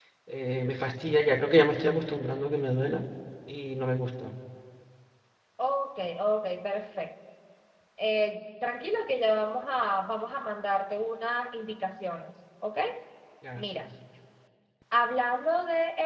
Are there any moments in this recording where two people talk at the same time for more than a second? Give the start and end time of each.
none

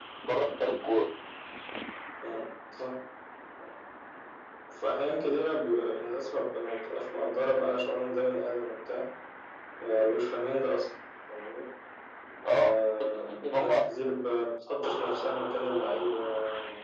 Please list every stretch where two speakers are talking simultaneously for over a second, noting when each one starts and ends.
12.4-13.8

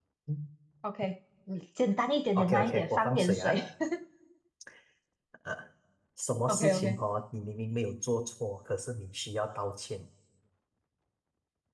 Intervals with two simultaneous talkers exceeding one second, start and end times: 2.4-3.6

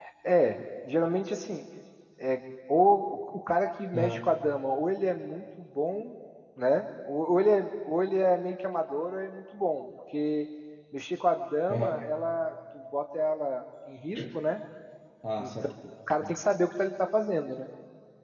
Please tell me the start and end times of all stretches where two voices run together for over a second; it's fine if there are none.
none

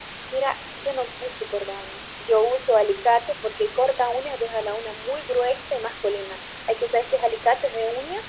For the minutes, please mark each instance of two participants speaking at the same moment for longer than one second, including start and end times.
none

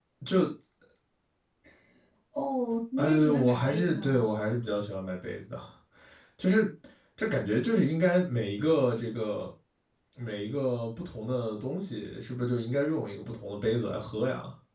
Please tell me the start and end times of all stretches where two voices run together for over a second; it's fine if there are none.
3.0-4.3

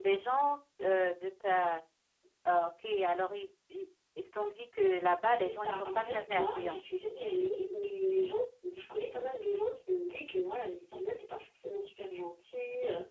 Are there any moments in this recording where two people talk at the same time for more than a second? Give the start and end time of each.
5.4-6.8

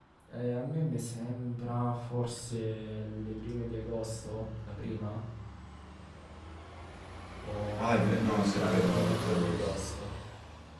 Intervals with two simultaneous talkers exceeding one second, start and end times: 7.8-9.8

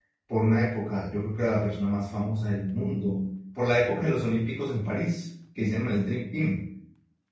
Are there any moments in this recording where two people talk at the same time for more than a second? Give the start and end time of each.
none

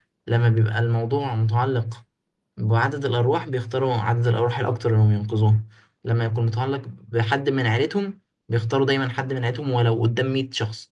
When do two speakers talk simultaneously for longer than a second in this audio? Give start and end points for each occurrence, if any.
none

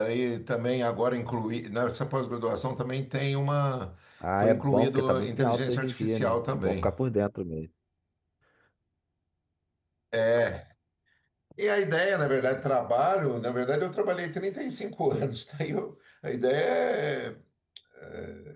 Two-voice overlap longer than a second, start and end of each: 4.4-6.9

